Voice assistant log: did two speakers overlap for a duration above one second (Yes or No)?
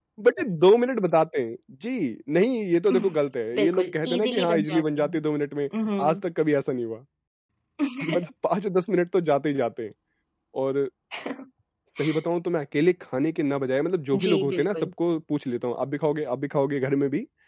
Yes